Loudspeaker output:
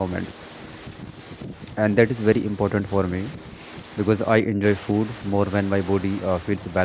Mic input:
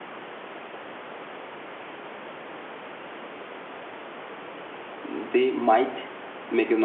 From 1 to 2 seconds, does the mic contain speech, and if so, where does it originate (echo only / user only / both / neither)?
neither